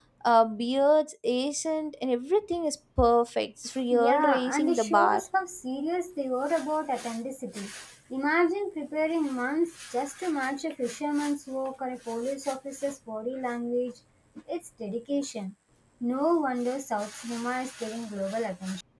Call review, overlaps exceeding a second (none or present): present